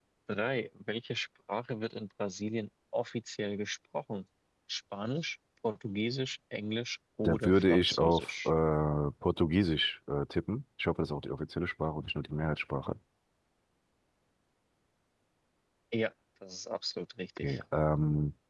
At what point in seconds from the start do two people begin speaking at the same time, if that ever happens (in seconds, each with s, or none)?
7.2 s